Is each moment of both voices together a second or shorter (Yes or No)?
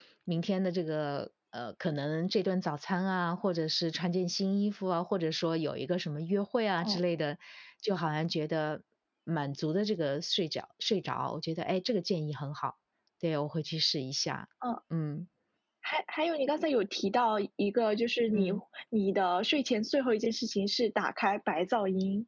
Yes